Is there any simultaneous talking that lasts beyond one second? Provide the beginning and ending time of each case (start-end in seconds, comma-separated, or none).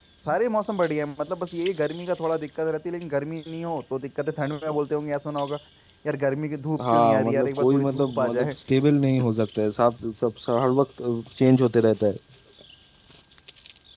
6.8-8.5